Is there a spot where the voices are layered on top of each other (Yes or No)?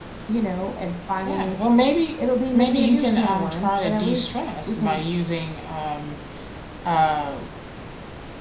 Yes